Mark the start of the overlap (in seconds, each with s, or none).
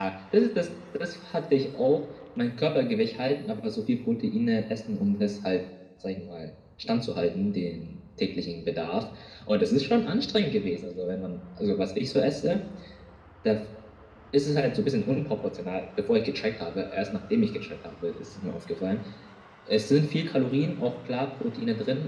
none